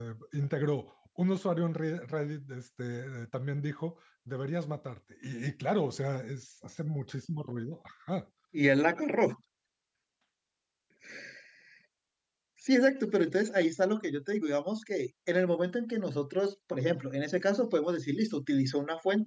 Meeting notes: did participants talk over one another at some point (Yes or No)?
No